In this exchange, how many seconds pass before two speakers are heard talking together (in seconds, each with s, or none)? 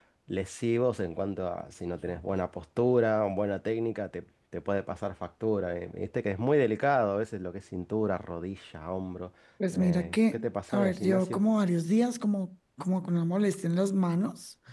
9.7 s